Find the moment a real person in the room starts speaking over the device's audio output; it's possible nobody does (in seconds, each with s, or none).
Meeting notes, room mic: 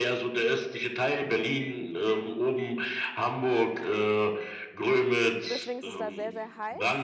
5.5 s